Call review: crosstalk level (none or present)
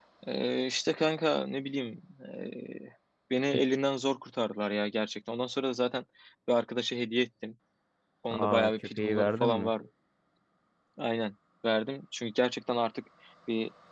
present